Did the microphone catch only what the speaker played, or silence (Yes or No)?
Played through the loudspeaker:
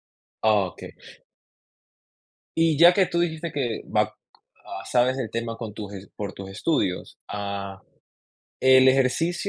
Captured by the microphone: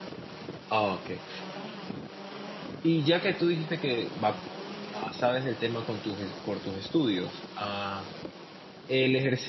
Yes